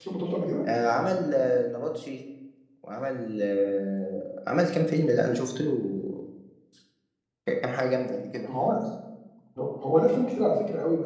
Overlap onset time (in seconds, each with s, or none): none